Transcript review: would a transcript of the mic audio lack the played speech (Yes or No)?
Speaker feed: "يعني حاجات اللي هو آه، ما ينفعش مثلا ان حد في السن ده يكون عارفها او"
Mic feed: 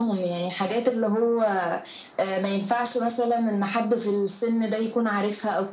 No